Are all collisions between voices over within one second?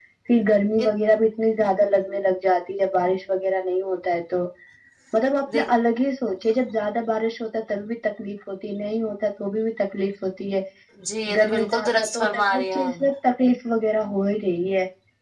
No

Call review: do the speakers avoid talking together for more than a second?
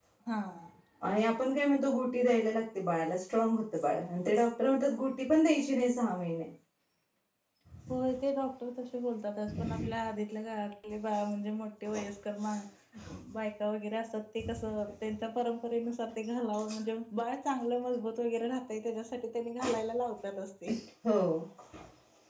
Yes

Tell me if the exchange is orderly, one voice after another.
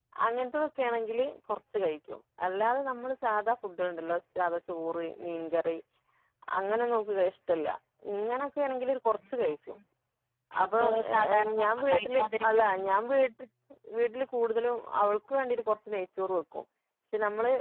No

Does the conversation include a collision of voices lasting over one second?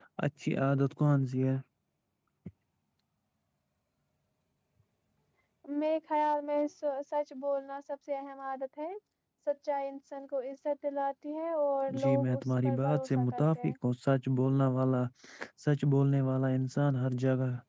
Yes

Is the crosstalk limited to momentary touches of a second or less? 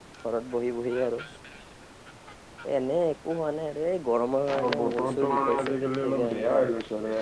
No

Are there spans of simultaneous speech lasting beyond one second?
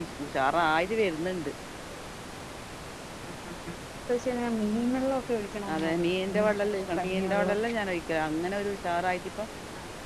Yes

